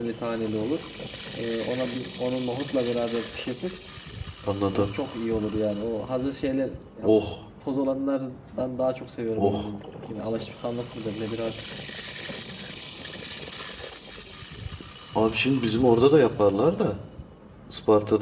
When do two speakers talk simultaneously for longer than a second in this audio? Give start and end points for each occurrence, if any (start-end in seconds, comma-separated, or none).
none